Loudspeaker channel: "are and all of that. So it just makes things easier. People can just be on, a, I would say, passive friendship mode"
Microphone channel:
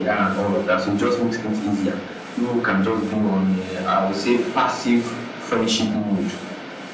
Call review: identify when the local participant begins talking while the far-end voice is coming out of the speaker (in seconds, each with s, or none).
none